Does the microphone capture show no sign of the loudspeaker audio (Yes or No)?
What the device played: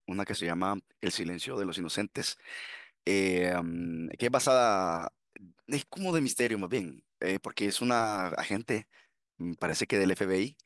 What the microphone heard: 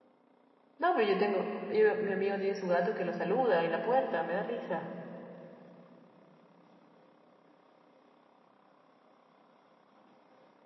Yes